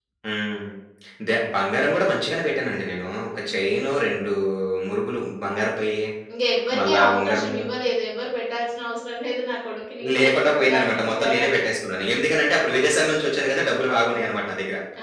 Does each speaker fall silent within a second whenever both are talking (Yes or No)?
No